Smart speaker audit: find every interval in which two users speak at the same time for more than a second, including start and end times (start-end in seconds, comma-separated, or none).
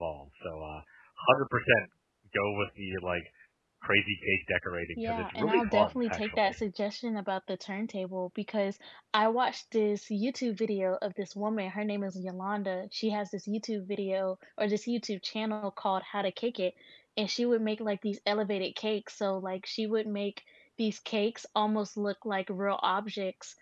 5.0-6.5